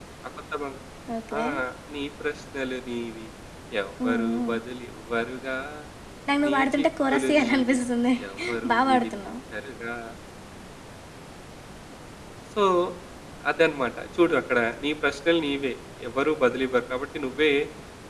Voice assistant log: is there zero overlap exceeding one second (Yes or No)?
No